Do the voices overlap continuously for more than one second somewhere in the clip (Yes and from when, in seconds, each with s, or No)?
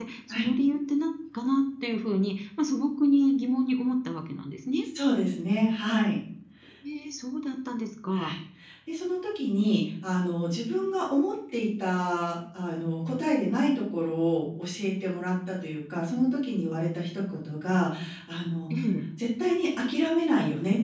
No